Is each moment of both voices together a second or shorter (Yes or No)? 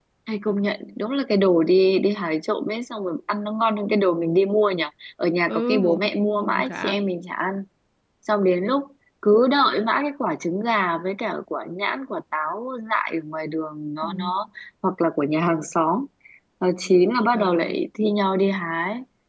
No